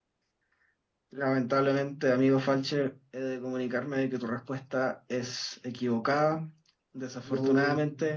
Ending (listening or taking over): listening